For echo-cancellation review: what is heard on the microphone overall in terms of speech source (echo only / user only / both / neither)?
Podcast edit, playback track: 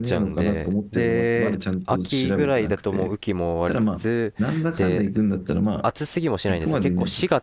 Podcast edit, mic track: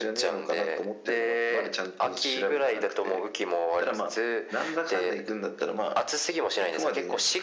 echo only